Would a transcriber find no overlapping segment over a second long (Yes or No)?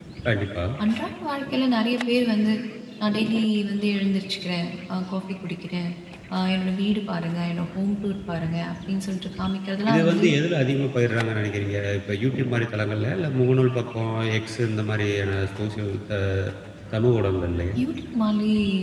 Yes